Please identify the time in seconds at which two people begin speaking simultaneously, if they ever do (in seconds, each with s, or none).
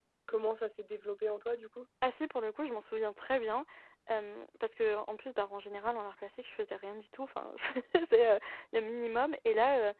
none